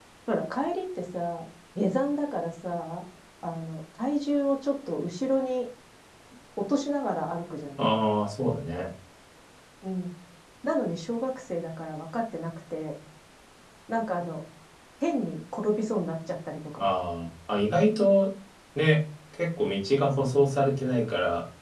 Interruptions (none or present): none